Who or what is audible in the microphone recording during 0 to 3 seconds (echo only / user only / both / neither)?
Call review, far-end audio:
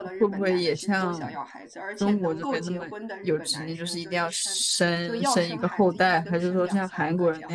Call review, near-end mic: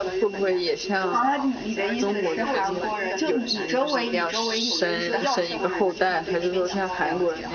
both